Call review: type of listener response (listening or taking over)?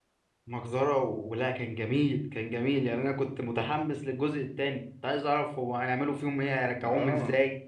taking over